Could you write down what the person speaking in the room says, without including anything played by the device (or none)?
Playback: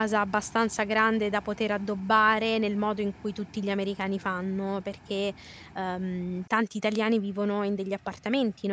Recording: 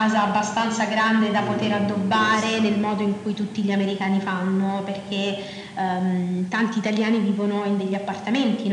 Mh, interessante.